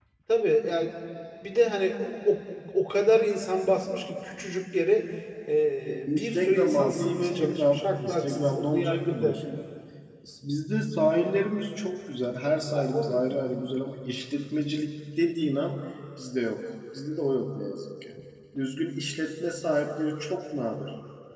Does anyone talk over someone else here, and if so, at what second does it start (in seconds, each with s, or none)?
6.1 s